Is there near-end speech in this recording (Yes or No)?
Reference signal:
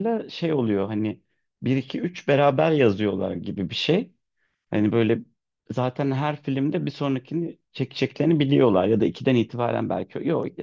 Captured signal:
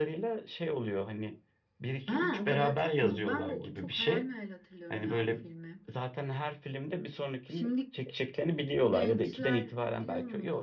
Yes